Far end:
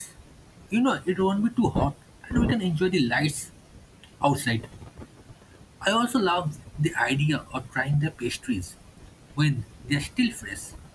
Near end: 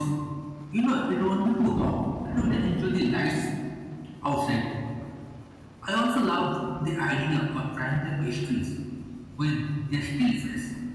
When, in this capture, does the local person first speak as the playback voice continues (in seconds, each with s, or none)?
none